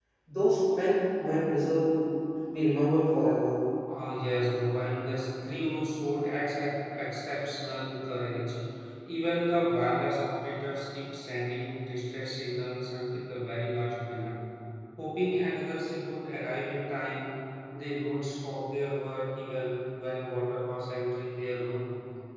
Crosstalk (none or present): none